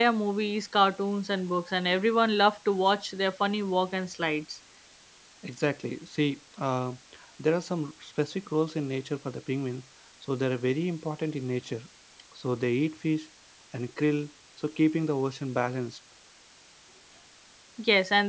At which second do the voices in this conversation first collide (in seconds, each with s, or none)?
none